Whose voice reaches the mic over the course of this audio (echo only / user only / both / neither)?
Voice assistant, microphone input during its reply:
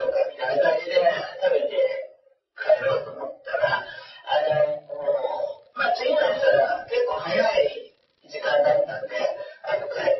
echo only